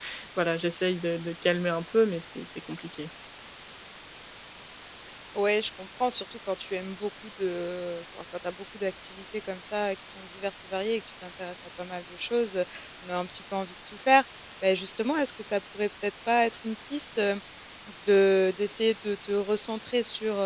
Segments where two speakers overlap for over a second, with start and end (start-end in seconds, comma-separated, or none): none